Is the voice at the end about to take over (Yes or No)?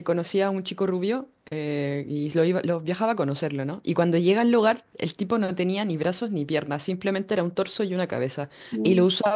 No